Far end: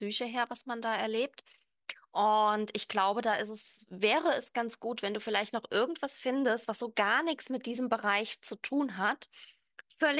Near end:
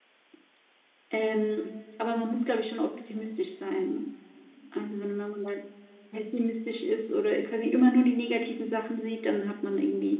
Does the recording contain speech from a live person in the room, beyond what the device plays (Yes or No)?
Yes